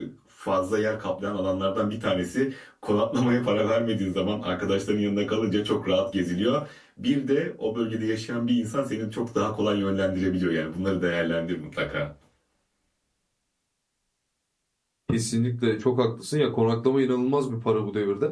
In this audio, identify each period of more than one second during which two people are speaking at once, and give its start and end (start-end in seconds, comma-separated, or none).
none